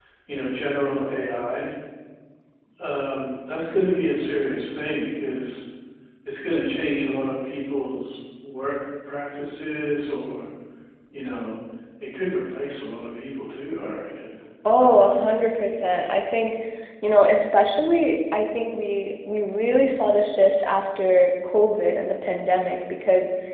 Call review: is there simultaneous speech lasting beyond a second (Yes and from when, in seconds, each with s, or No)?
No